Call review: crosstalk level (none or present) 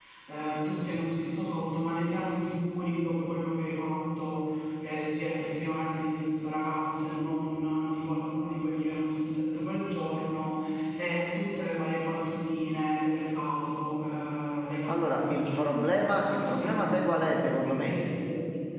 present